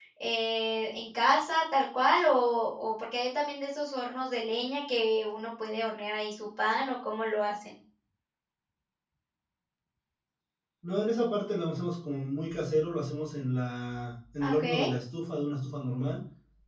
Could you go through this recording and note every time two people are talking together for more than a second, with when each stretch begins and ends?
none

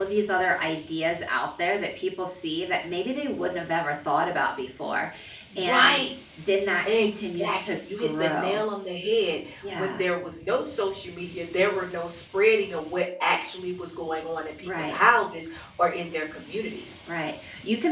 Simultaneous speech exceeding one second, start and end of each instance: 6.9-8.6

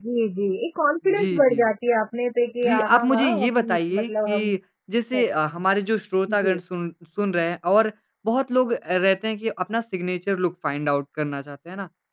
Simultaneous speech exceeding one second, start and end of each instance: 2.6-4.6

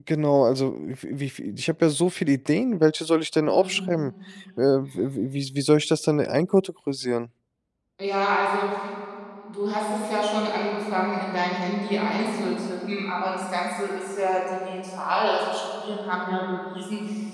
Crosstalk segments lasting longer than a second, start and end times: none

